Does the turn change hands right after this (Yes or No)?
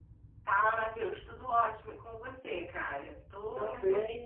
Yes